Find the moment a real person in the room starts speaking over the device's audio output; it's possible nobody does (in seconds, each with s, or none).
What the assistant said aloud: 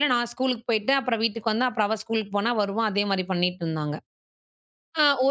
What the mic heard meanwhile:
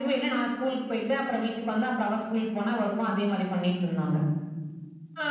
none